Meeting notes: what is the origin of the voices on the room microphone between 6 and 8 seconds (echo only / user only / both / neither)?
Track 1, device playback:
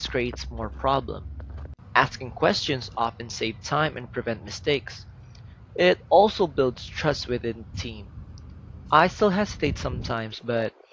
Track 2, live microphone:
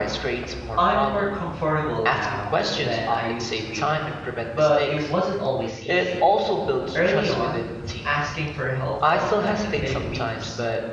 both